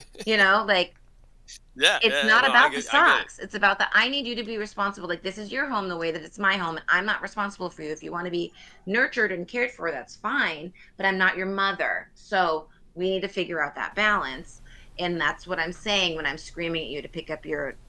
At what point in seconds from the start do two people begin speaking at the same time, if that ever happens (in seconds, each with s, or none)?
2.0 s